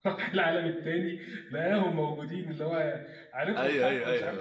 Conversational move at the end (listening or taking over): taking over